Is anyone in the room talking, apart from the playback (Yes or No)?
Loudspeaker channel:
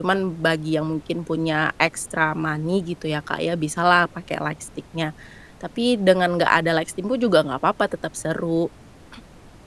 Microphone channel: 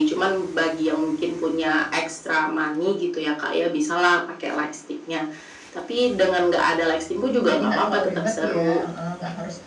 Yes